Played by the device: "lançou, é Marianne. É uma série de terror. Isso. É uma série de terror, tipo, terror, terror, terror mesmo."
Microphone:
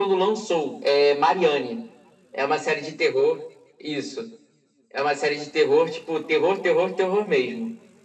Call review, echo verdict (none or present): present